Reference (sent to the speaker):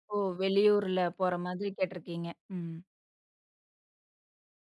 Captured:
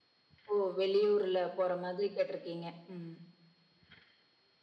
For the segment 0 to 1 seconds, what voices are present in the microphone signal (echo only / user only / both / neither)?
echo only